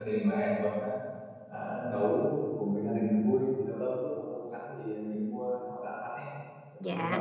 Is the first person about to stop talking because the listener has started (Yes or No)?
Yes